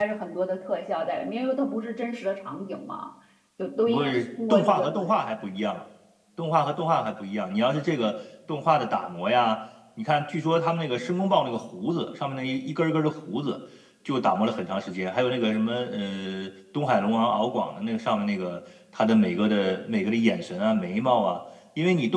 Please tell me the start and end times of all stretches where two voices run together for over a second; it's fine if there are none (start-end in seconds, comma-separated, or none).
3.9-5.1